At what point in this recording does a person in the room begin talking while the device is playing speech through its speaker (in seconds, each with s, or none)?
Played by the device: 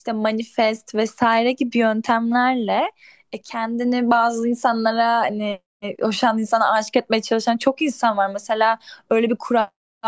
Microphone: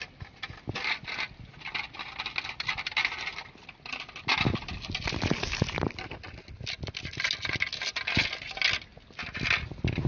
none